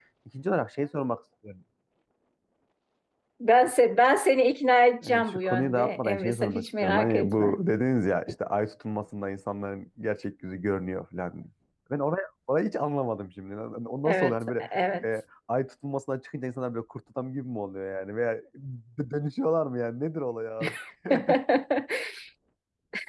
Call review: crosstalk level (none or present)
present